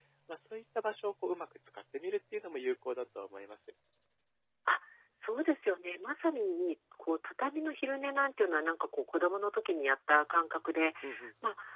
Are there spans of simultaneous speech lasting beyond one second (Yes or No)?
No